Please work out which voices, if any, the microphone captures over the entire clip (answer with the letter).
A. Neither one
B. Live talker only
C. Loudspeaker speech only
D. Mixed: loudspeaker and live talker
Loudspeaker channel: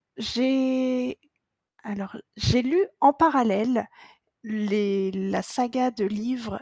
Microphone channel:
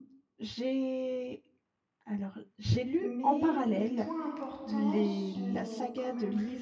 D